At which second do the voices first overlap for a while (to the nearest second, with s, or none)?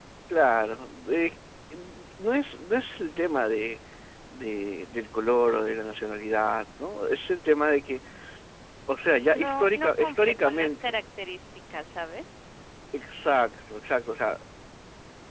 9 s